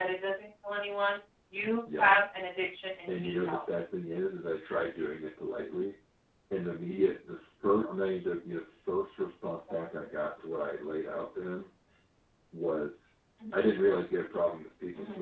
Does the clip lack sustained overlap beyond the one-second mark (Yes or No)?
Yes